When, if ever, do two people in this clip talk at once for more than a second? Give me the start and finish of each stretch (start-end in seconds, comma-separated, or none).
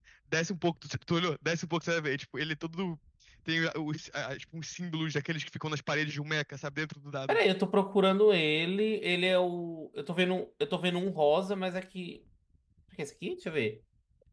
none